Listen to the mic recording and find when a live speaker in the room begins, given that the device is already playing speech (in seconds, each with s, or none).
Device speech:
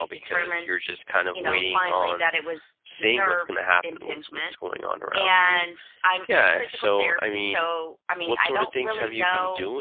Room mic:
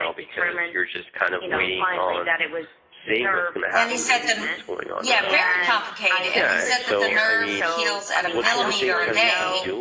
3.7 s